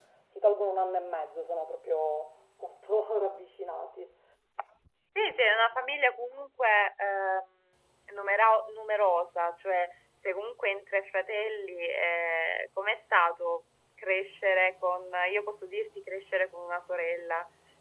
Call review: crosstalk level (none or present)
none